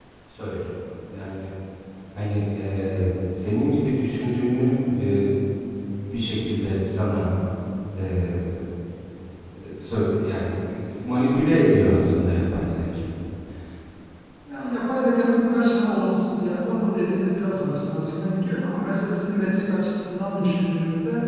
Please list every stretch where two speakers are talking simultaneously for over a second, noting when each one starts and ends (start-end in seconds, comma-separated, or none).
none